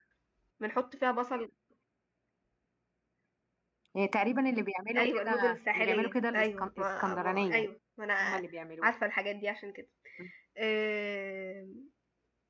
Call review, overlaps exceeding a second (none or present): present